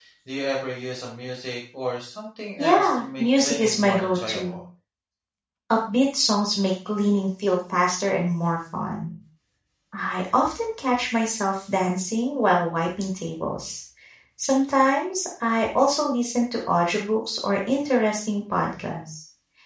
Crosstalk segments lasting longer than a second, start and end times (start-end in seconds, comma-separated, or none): 2.6-4.6